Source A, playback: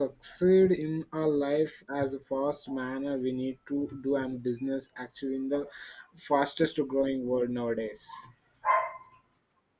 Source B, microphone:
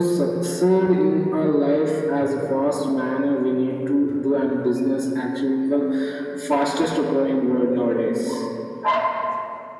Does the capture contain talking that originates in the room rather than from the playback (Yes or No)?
No